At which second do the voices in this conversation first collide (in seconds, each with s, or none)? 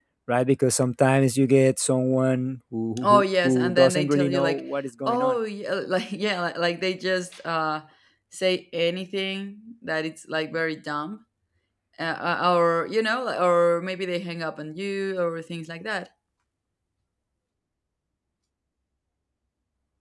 3.0 s